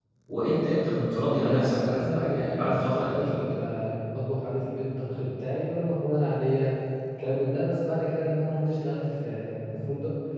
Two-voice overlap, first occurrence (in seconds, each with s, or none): 1.3 s